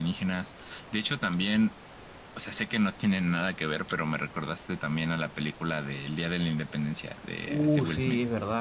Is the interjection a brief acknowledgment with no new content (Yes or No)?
No